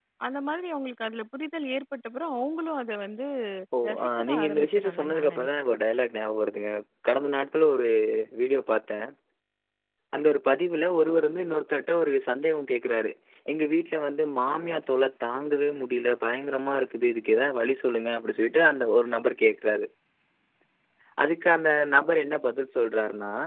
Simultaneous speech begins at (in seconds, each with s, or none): 3.9 s